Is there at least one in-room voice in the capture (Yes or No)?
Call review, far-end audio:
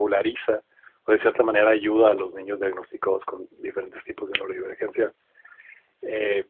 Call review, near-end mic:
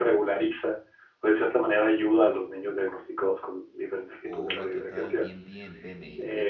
Yes